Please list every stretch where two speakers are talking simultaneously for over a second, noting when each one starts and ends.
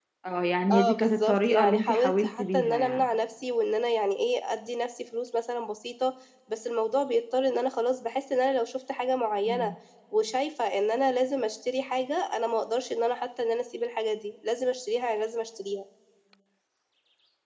0.7-3.0

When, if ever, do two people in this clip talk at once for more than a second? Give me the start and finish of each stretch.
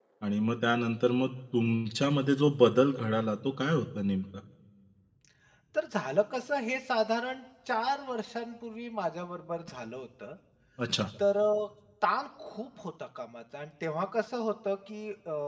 none

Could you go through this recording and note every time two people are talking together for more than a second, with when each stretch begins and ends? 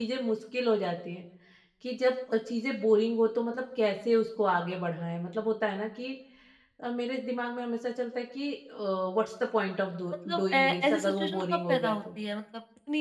10.4-12.0

